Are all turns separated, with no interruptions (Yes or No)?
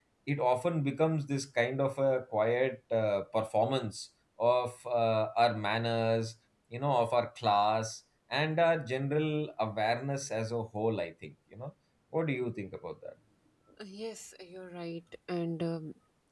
Yes